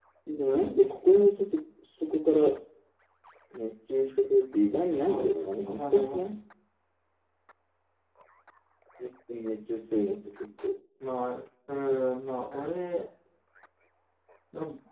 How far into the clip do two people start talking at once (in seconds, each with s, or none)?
4.9 s